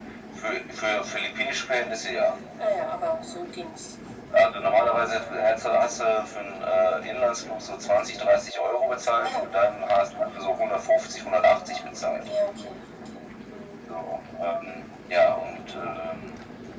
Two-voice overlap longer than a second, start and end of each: none

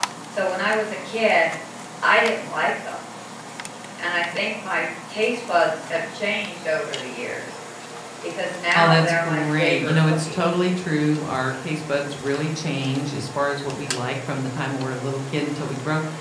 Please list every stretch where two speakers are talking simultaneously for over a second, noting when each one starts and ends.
8.8-10.4

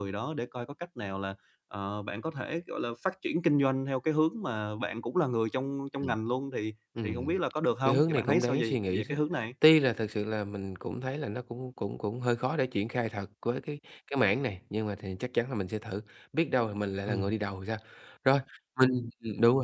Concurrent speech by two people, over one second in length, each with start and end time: 7.8-9.2

